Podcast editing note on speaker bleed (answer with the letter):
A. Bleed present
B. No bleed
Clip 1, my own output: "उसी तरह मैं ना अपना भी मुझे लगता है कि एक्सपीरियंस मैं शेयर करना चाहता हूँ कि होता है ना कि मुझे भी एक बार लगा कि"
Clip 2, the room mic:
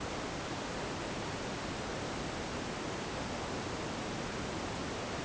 B